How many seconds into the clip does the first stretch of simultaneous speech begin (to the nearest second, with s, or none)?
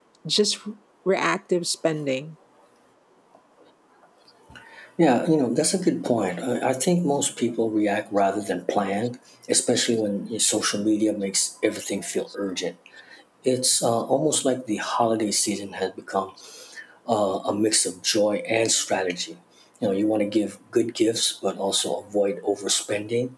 none